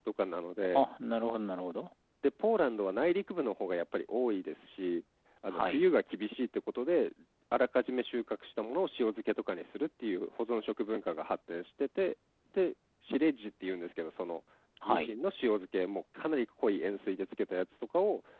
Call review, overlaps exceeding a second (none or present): none